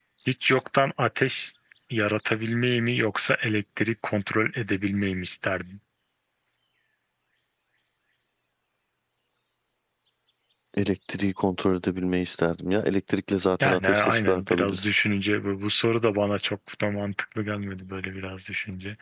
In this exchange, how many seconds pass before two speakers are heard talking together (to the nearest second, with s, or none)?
14 s